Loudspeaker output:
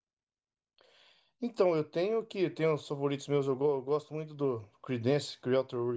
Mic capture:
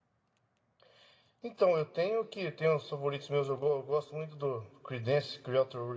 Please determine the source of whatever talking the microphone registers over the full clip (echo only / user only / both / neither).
echo only